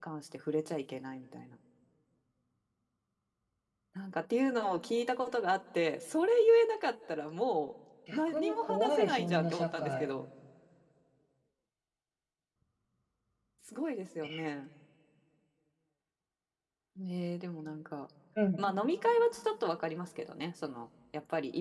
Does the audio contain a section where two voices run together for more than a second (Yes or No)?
Yes